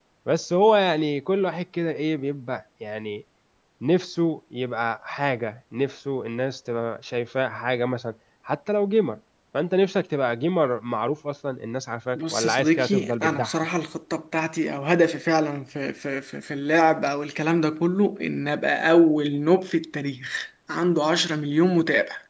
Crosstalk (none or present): present